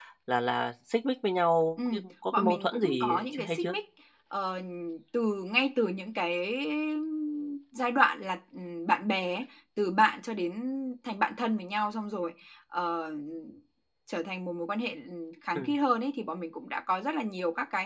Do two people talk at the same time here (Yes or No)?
Yes